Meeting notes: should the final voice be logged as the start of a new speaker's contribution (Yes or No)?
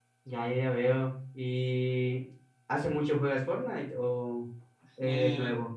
Yes